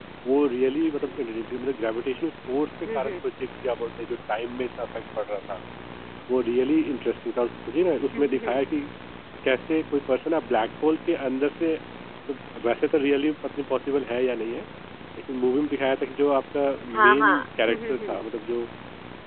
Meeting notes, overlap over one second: present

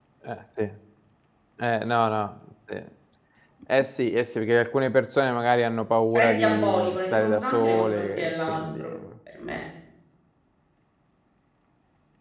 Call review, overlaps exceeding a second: present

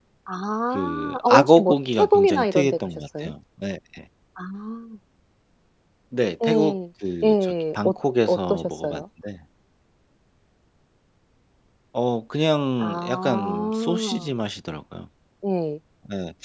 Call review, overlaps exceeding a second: present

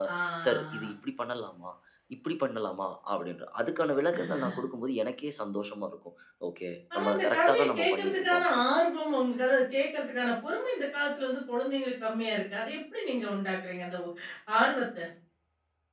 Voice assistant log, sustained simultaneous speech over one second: present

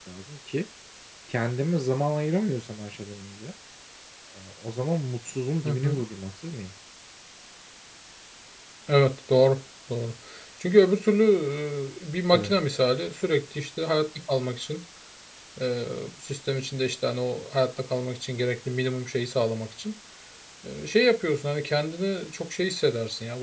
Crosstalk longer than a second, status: none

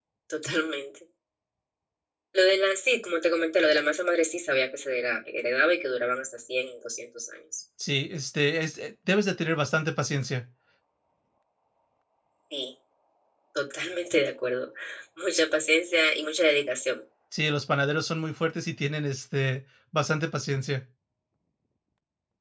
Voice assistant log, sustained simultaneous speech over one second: none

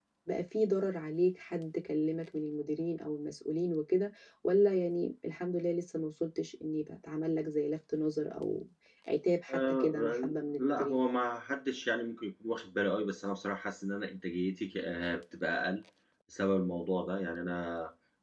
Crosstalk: present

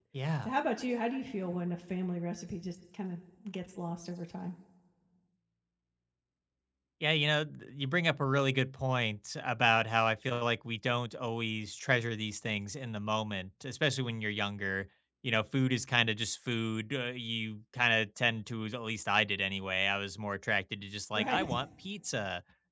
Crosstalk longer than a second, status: none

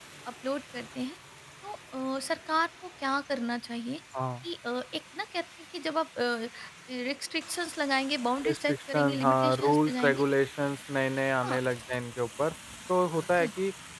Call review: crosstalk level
present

